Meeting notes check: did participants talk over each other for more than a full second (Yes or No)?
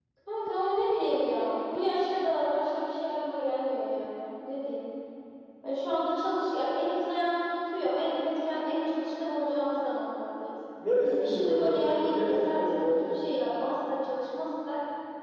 Yes